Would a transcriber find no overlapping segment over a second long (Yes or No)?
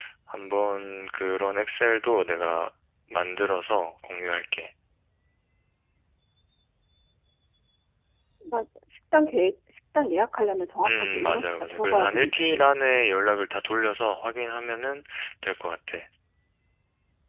No